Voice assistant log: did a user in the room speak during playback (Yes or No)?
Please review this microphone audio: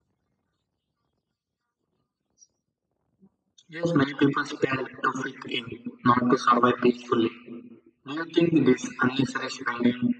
No